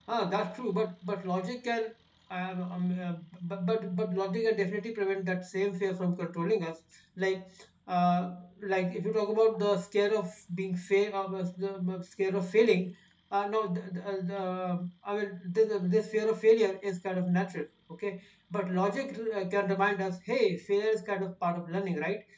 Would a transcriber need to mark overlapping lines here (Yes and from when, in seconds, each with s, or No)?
No